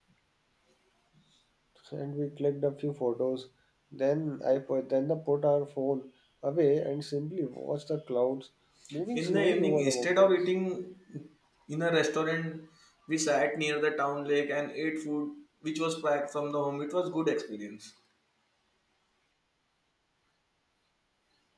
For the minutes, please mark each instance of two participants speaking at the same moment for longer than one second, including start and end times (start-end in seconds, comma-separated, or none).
9.1-10.3